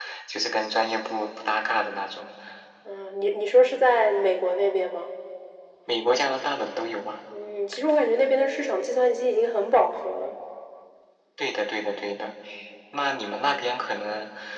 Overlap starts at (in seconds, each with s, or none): none